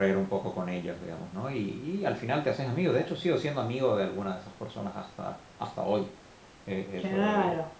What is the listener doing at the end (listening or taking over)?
taking over